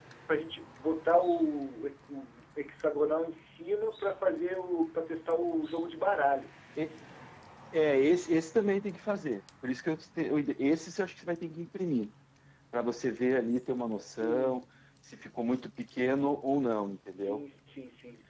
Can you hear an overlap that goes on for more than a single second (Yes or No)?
No